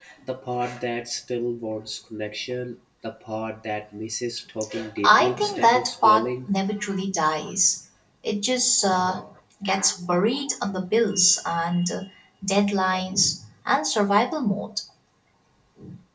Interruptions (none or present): present